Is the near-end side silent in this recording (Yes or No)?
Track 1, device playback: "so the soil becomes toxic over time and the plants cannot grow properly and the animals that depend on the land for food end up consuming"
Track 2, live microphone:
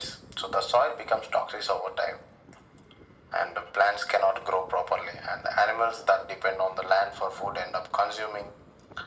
Yes